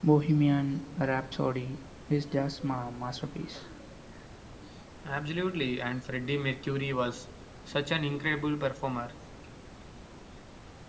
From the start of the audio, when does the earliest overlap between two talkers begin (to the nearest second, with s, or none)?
none